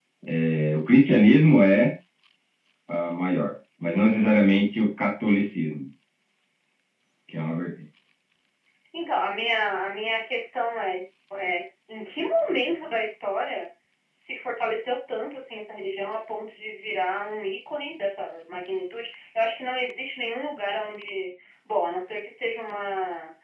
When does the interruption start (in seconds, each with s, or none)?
none